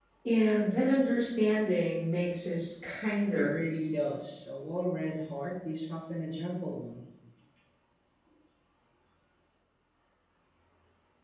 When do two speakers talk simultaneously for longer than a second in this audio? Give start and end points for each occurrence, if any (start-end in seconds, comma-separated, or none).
none